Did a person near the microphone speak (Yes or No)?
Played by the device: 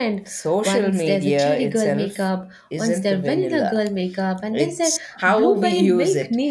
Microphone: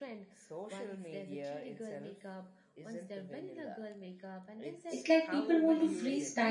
Yes